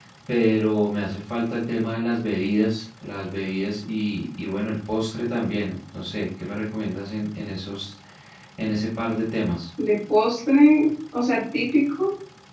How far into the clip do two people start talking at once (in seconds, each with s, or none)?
none